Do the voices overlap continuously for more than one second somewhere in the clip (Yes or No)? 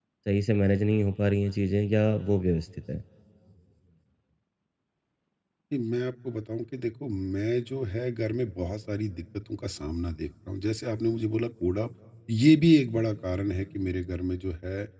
No